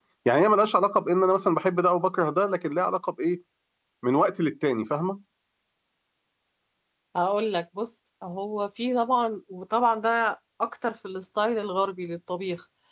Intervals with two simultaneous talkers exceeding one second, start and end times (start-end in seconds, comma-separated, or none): none